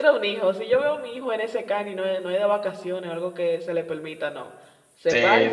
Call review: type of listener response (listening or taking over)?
taking over